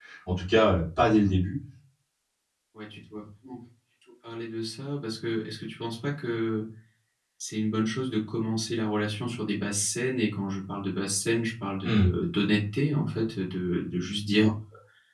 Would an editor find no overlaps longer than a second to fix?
Yes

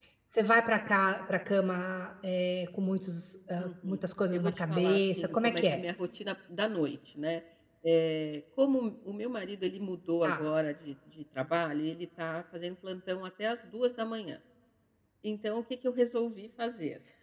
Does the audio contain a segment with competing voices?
Yes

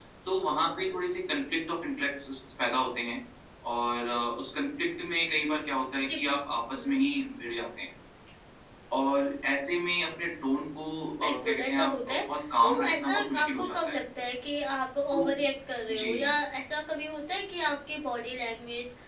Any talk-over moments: Yes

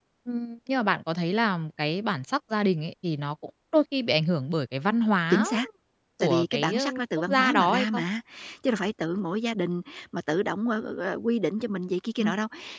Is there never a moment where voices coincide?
No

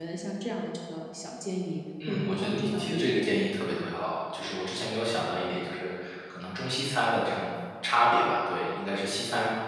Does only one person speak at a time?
No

